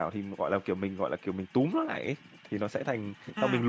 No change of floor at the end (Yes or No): No